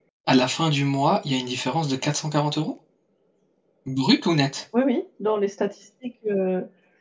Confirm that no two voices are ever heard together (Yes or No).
Yes